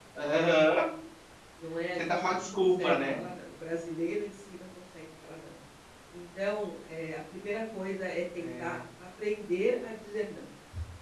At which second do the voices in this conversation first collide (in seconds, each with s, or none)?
2.0 s